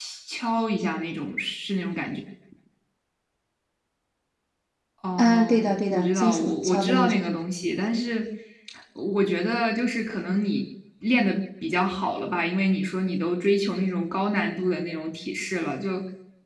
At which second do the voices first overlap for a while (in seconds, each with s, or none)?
5.2 s